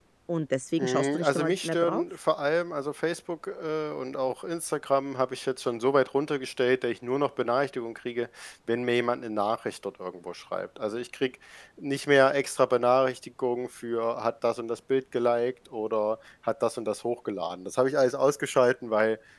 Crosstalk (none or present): present